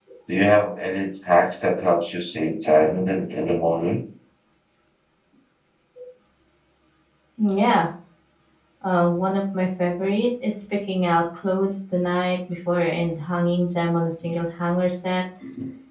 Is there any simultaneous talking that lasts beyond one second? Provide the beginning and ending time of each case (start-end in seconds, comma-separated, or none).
none